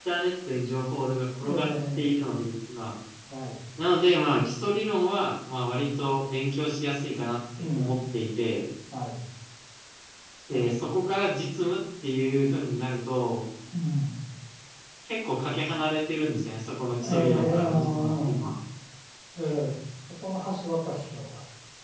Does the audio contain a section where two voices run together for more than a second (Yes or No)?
Yes